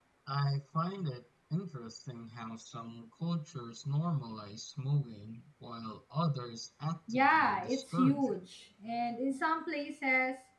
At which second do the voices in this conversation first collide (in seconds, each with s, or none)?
7.1 s